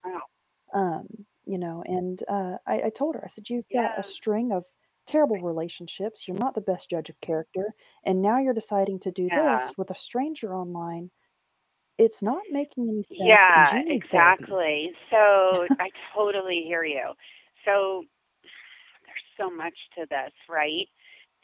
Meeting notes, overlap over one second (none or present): present